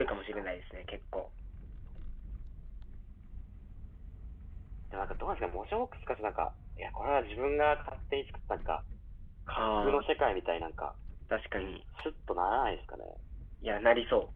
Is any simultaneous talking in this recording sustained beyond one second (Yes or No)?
No